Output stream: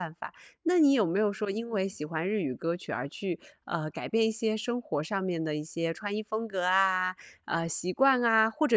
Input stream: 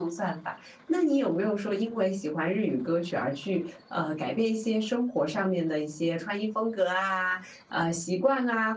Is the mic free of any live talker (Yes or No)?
Yes